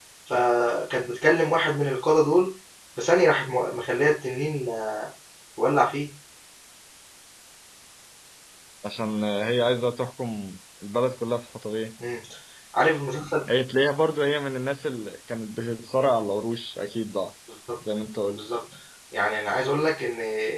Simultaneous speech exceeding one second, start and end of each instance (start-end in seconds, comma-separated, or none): none